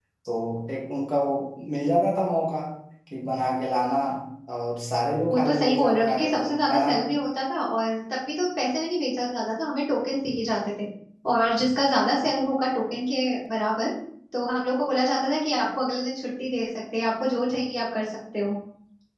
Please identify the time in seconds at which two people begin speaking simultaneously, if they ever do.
5.3 s

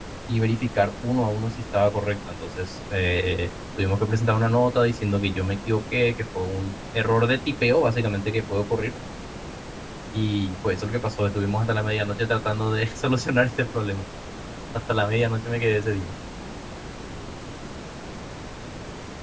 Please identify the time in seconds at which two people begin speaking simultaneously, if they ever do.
none

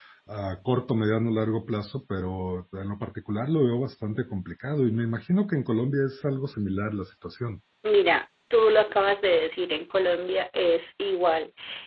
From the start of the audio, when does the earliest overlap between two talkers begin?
none

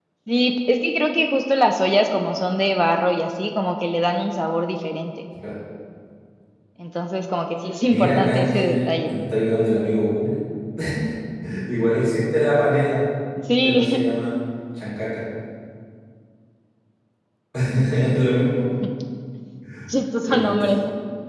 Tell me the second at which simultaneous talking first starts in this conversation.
7.9 s

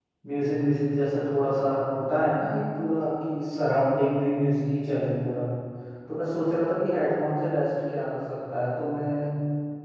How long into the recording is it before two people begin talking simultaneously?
none

